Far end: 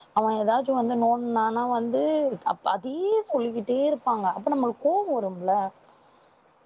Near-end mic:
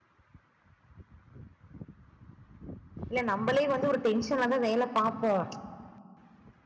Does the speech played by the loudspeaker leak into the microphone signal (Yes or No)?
No